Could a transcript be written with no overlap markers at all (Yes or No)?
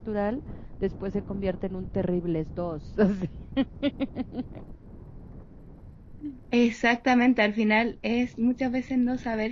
Yes